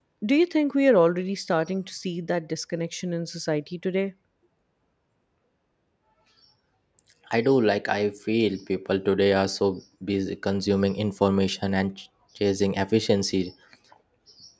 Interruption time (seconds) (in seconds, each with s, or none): none